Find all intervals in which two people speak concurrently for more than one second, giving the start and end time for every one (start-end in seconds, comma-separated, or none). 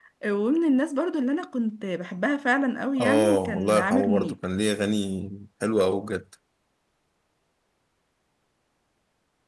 3.0-4.3